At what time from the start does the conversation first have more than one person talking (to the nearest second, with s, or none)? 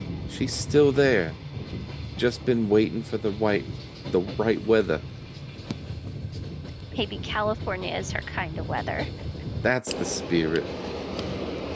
none